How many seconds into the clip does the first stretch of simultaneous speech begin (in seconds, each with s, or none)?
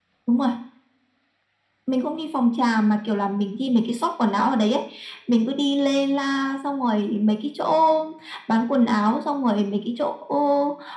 none